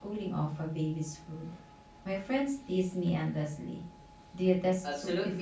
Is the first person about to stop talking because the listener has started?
Yes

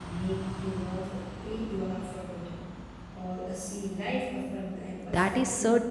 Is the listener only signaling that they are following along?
No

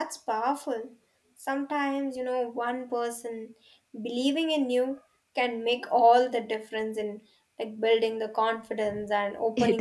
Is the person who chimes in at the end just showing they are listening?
No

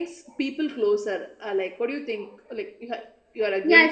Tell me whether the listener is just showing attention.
No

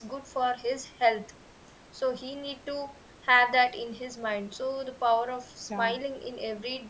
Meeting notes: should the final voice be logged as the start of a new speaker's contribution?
No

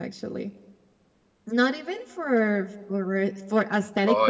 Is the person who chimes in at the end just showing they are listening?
Yes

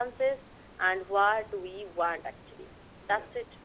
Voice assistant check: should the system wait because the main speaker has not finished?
Yes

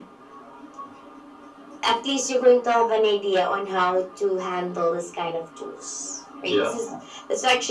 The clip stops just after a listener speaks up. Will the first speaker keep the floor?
Yes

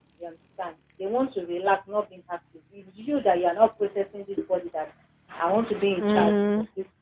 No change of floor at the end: Yes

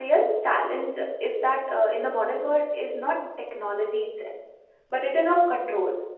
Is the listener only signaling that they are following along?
Yes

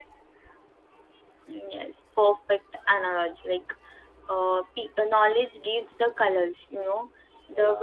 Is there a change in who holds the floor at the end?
No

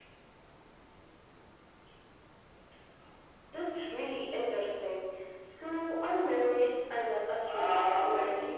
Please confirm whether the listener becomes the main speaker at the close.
Yes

